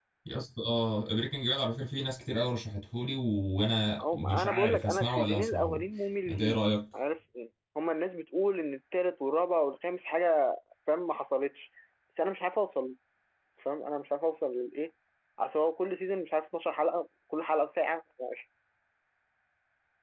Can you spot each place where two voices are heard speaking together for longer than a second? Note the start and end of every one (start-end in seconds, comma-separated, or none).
4.0-6.6